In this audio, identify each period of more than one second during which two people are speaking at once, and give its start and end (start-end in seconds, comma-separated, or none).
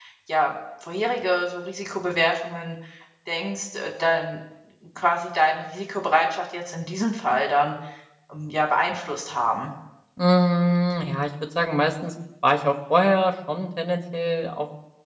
none